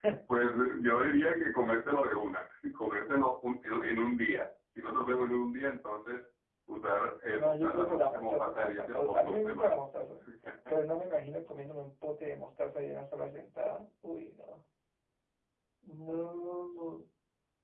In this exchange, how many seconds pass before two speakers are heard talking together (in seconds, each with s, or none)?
7.3 s